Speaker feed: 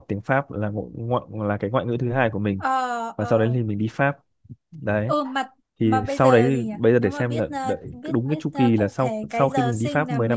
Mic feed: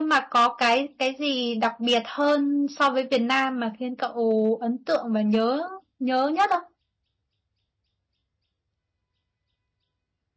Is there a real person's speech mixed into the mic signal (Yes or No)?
Yes